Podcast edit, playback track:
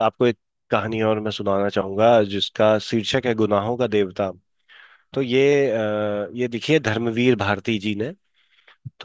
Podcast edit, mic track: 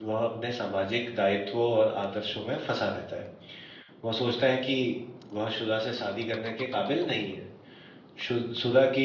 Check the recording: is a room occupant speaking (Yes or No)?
Yes